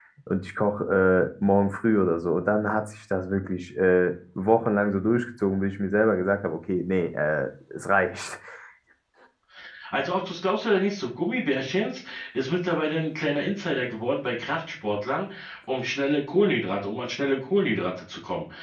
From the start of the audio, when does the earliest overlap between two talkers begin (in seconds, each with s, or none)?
none